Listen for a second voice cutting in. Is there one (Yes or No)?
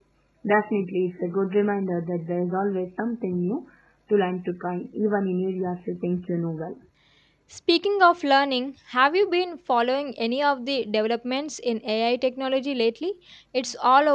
No